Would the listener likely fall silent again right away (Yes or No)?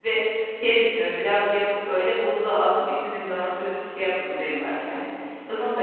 Yes